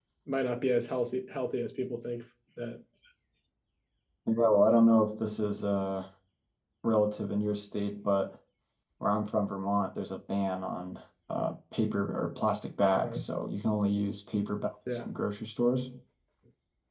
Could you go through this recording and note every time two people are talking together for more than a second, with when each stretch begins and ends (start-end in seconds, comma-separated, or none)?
none